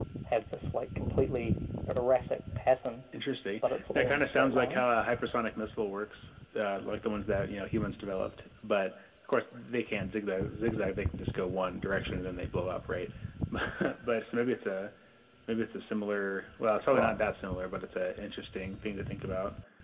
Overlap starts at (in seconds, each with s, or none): 3.6 s